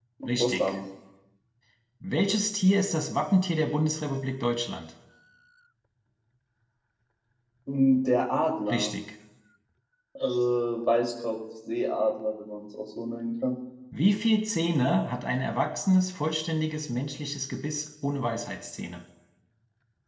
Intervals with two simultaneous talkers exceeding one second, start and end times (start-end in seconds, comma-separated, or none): none